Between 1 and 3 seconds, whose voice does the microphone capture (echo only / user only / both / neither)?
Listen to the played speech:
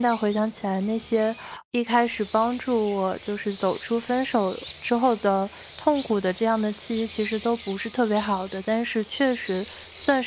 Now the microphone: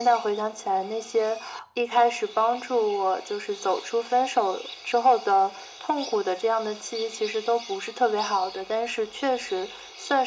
echo only